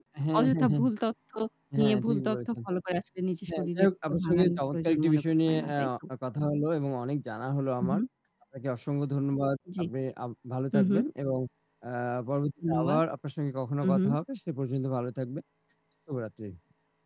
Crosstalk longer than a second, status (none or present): present